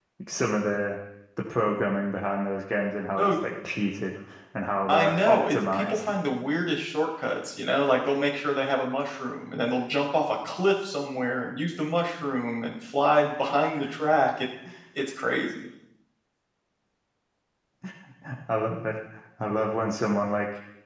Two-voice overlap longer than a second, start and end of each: 4.9-6.1

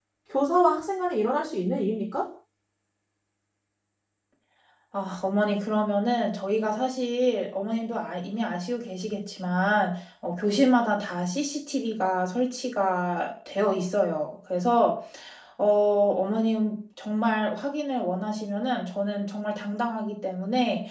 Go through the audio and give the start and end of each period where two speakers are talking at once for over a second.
none

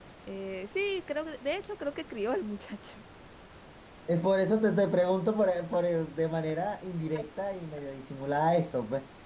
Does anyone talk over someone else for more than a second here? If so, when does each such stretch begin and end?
none

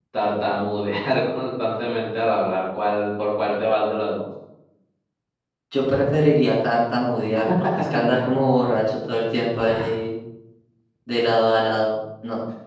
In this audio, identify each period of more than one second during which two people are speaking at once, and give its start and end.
none

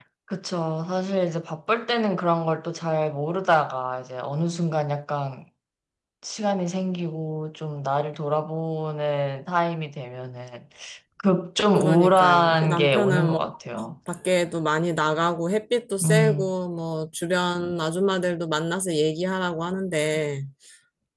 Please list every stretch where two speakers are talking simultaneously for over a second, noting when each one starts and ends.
11.8-13.4

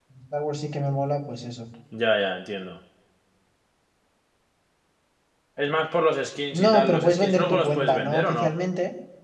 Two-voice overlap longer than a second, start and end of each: 6.5-8.5

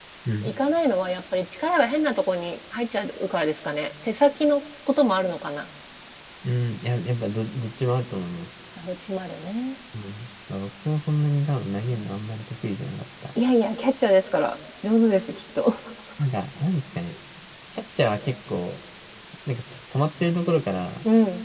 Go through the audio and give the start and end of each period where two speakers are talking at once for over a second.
none

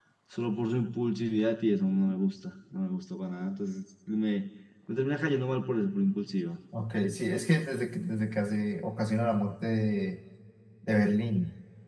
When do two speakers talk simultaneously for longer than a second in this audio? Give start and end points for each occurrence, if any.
none

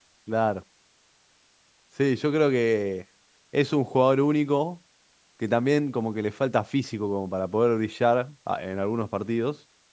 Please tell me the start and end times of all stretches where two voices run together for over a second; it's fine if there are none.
none

